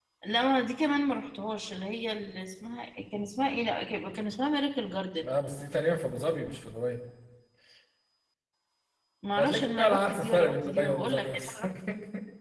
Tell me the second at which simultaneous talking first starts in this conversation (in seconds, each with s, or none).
9.4 s